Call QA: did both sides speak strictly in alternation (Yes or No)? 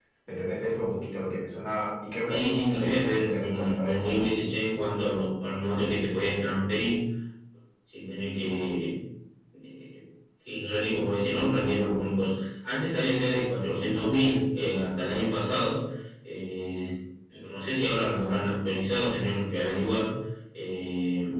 No